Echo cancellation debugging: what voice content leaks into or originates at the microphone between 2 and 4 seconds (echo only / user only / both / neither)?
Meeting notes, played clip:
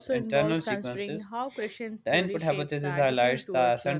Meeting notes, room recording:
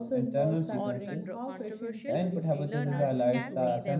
both